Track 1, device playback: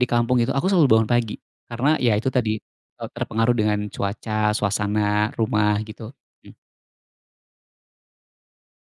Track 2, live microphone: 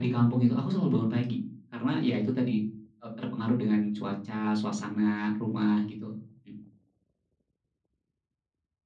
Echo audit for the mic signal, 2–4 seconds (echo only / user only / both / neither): echo only